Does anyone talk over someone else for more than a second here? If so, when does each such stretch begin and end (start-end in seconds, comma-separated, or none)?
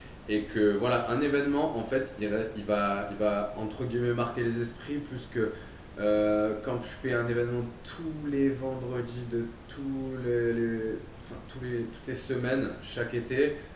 none